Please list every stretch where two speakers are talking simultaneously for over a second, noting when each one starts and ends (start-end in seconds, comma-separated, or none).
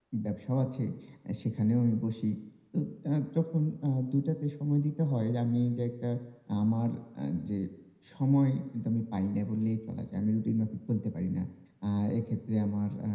none